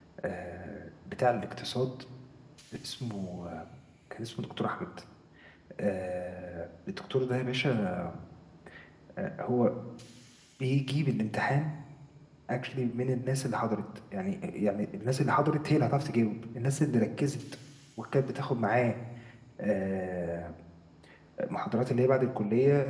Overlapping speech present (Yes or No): No